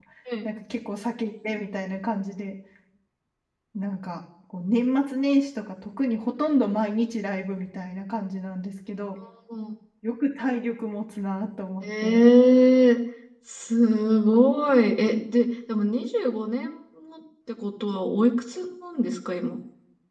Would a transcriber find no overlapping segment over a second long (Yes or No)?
Yes